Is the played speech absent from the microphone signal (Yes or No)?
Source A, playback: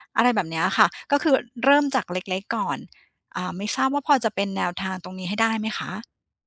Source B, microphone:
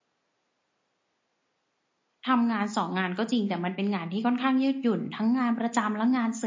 Yes